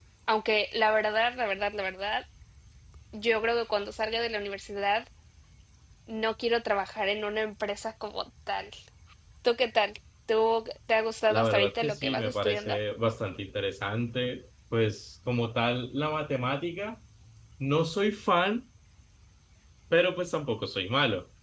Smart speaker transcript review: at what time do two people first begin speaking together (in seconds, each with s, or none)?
11.3 s